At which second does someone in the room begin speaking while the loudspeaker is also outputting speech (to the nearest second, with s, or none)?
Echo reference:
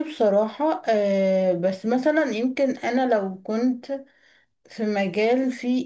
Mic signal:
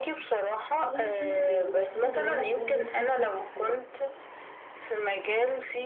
1 s